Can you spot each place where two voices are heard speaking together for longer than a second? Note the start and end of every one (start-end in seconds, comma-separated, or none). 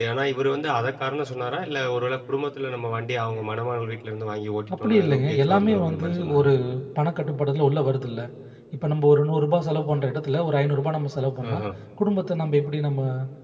4.8-6.5